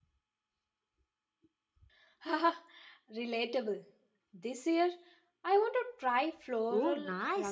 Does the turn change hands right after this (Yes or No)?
Yes